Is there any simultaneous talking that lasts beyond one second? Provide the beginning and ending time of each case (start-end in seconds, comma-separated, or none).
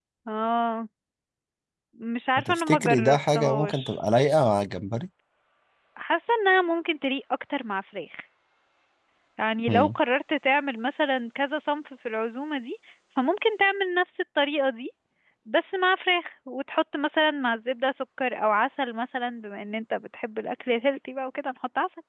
2.4-3.9